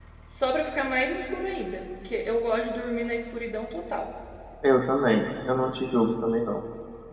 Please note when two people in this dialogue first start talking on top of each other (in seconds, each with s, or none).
none